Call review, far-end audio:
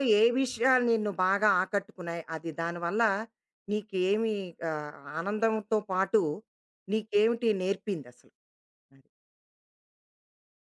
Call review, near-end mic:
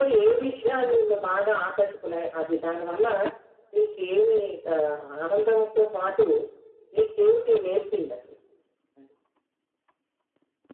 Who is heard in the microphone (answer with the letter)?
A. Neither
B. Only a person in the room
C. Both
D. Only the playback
D